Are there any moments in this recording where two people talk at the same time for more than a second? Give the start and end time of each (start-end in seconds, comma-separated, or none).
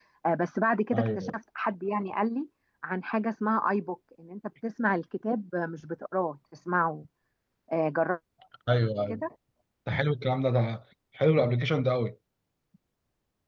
none